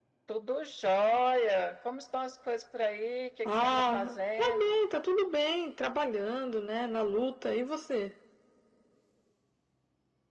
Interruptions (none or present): present